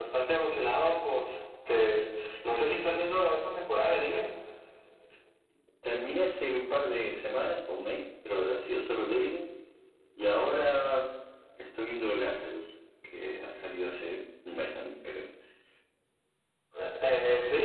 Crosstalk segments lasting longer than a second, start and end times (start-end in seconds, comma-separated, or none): none